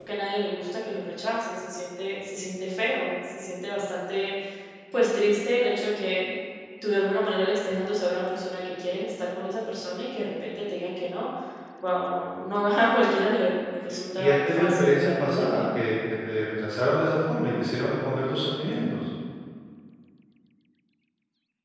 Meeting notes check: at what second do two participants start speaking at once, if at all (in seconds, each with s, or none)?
14.2 s